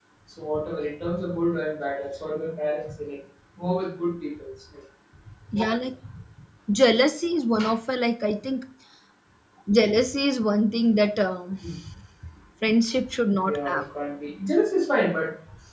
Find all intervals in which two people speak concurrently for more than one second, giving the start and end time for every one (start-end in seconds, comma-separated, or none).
none